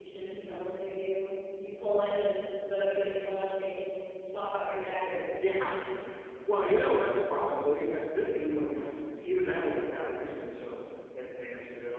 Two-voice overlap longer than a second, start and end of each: none

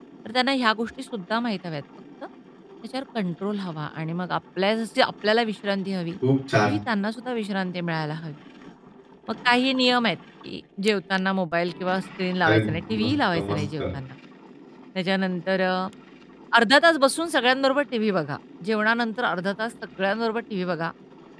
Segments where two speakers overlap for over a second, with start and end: 12.4-13.8

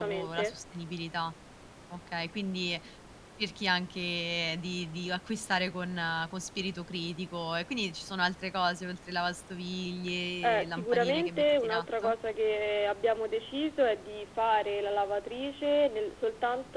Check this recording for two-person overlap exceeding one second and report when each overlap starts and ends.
10.4-12.1

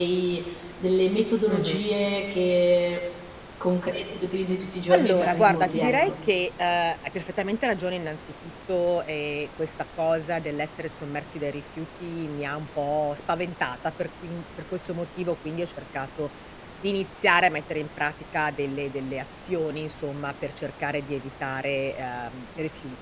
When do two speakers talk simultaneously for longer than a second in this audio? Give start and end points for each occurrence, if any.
4.9-6.2

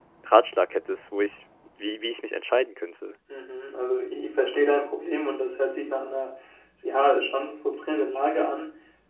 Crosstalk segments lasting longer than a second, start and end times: none

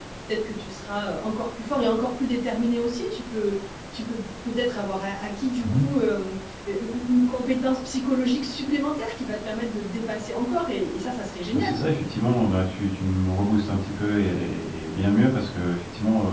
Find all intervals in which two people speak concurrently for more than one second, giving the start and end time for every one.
none

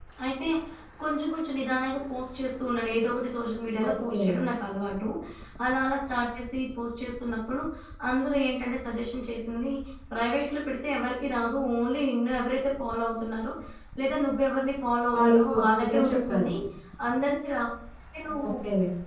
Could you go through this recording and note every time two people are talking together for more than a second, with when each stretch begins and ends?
15.2-16.5

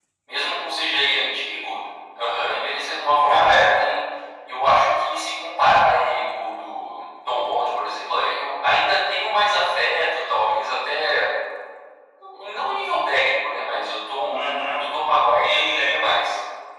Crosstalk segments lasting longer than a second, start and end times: none

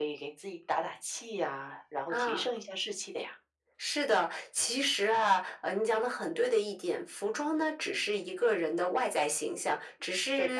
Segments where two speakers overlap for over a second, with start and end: none

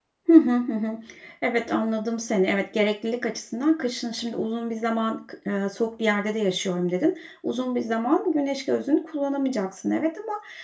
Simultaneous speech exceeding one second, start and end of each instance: none

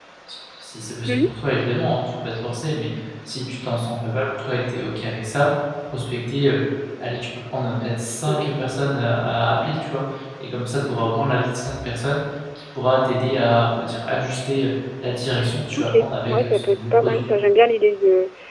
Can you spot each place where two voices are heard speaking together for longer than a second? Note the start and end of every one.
15.8-17.2

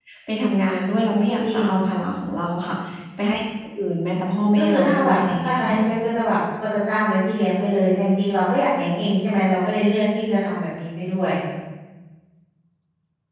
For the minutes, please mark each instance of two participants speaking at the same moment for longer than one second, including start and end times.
4.6-5.8

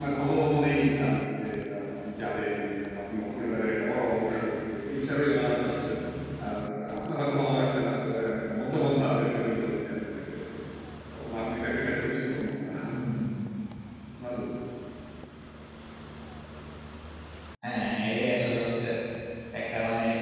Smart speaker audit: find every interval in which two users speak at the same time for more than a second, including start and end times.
none

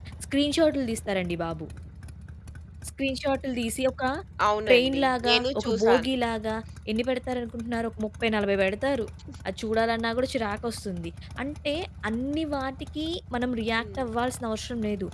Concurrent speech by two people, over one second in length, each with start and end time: 4.7-6.1

